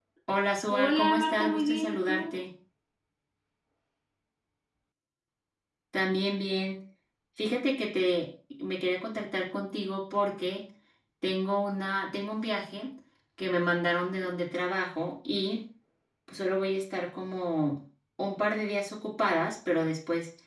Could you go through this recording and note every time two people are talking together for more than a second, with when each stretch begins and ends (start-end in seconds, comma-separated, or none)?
0.7-2.4